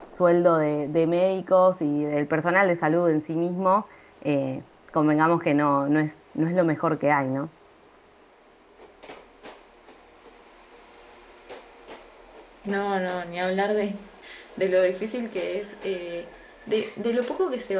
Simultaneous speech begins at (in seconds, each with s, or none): none